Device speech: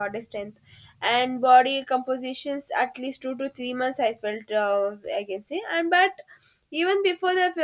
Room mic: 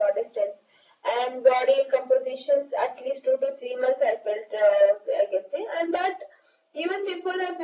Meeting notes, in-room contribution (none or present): none